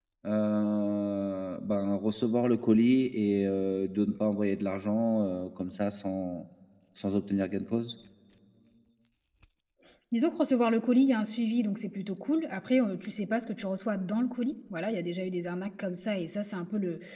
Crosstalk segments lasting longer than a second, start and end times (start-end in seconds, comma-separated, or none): none